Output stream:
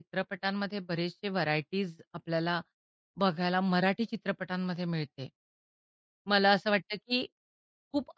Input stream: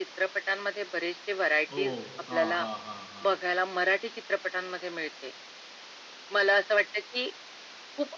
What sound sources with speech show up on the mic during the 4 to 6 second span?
echo only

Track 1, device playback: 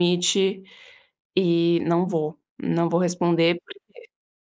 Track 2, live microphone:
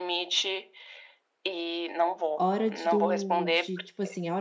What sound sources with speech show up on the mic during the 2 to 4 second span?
both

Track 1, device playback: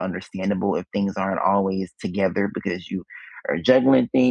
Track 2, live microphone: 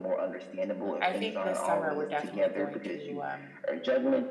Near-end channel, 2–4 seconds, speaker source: both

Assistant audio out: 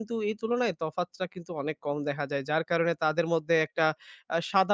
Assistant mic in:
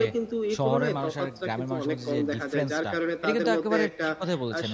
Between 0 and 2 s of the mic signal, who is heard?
both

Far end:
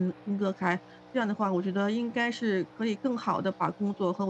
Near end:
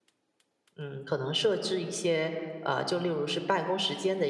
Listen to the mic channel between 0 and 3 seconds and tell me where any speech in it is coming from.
user only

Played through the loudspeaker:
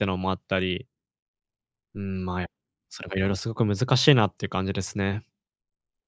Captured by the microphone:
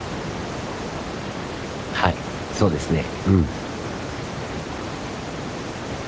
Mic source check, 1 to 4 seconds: user only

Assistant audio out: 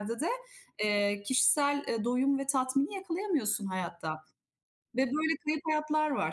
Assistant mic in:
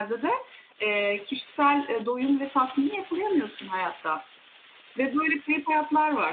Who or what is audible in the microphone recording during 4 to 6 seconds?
echo only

